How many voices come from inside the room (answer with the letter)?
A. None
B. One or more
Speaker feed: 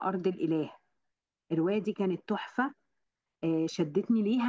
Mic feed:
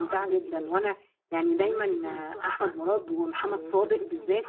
B